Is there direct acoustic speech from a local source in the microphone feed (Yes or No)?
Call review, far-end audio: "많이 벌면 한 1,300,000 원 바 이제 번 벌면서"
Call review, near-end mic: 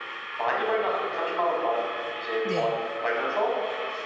Yes